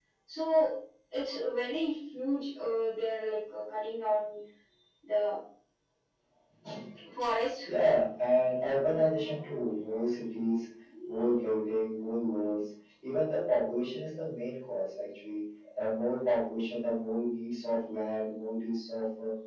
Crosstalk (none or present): none